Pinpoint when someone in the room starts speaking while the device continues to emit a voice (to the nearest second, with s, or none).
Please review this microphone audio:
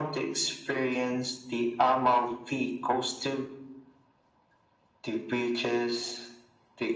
none